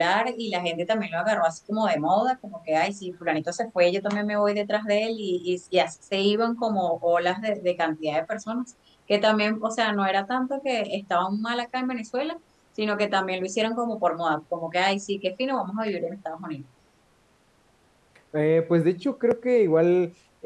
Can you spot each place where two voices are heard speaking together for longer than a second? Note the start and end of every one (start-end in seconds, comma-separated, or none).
none